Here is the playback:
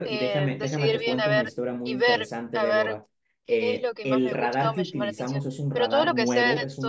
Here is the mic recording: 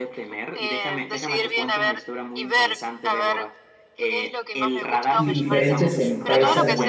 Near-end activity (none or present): present